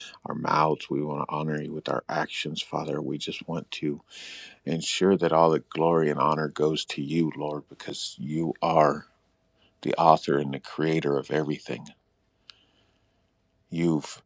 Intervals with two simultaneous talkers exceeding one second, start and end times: none

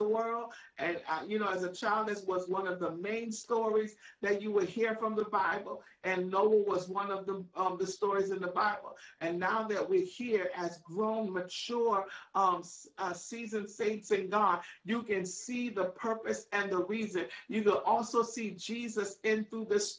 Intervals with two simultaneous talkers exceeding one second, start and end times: none

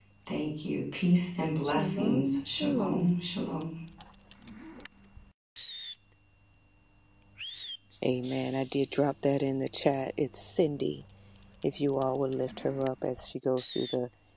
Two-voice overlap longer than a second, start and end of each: 1.6-3.1

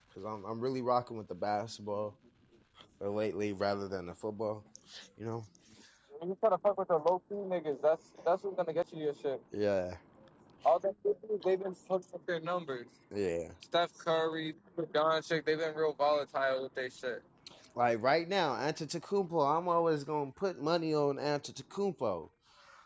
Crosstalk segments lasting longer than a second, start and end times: none

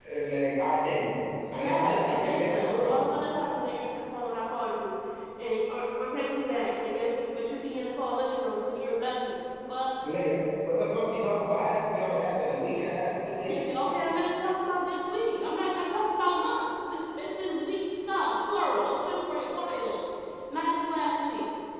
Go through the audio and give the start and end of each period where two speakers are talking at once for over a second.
1.6-3.0

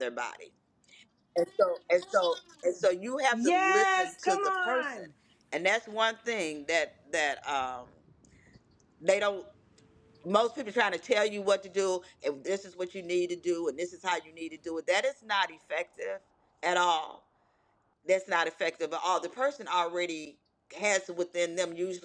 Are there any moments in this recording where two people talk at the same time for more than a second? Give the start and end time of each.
3.3-5.1

